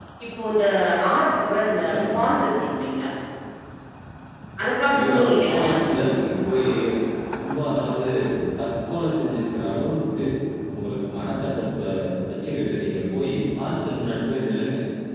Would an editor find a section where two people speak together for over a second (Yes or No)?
Yes